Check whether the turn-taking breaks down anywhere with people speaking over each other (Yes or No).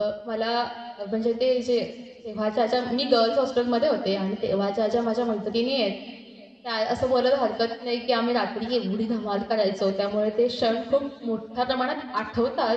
No